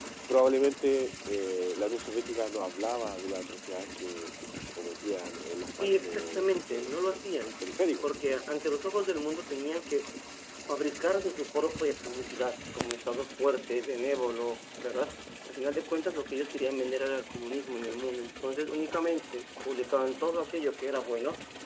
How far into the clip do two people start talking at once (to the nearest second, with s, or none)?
6 s